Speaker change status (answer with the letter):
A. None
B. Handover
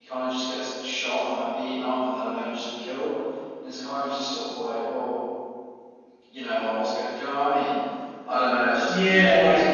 B